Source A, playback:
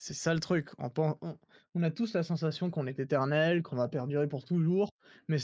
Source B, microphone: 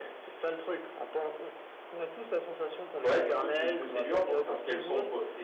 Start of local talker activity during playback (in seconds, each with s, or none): 3.0 s